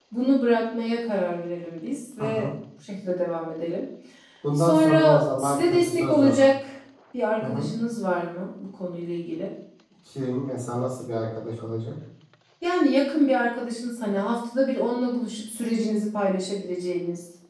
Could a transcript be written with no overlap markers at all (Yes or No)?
No